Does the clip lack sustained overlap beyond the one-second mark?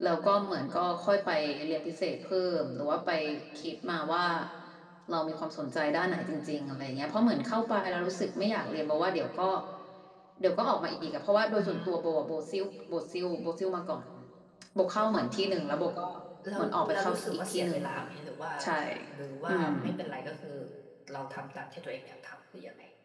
No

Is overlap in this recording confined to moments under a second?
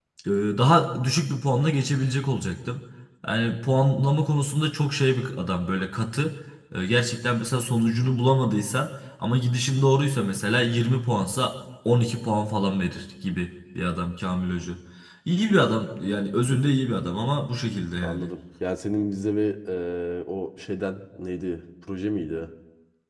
Yes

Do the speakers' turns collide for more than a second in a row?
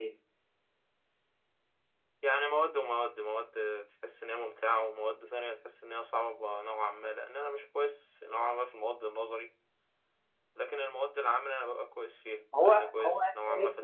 Yes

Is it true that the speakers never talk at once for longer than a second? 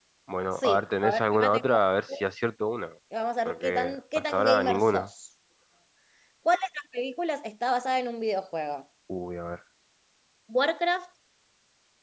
No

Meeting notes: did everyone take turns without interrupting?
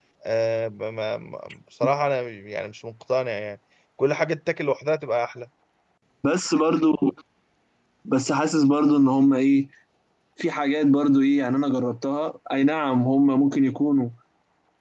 Yes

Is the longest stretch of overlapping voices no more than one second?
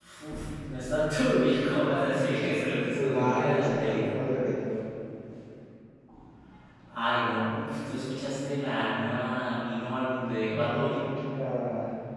No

